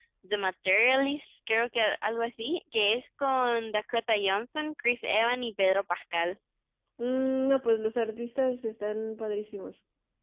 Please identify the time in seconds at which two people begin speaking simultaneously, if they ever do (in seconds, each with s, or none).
none